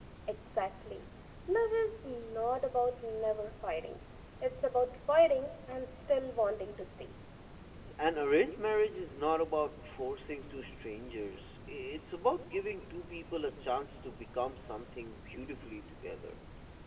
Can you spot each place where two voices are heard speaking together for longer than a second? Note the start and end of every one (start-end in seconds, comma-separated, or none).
none